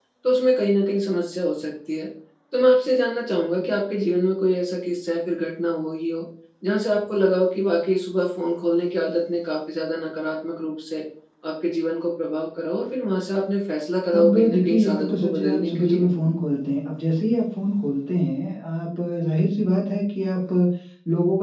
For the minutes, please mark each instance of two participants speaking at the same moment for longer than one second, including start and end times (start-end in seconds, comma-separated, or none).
14.2-16.1